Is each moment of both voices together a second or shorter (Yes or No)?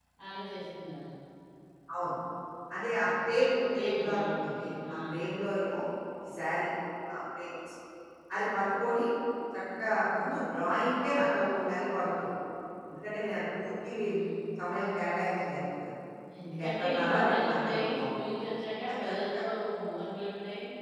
No